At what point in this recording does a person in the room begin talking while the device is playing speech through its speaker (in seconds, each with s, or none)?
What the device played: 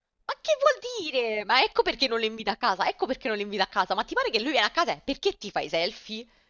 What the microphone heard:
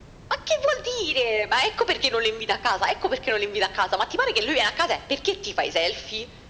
none